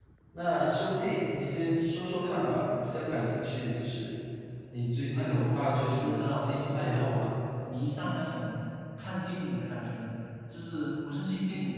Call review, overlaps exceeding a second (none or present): present